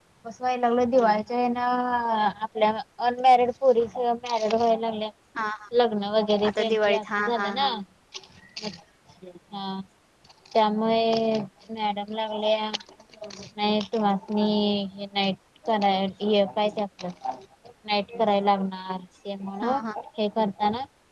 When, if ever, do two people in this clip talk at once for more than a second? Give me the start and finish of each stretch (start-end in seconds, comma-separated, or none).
6.5-7.7